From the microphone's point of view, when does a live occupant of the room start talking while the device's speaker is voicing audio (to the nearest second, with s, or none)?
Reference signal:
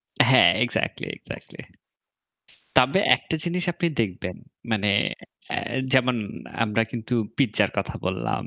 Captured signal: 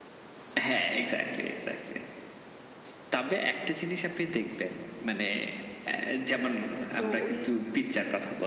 7 s